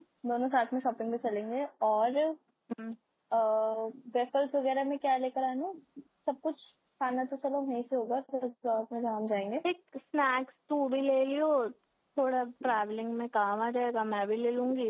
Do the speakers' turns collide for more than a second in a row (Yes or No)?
No